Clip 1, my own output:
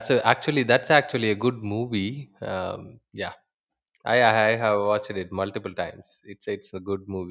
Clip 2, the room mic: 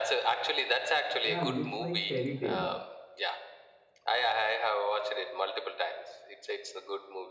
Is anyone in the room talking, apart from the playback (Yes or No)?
Yes